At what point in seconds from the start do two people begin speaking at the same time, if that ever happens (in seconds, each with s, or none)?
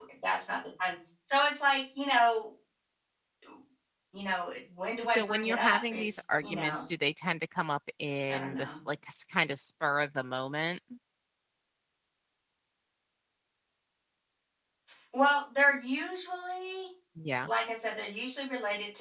5.1 s